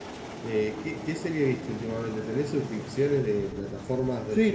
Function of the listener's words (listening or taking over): taking over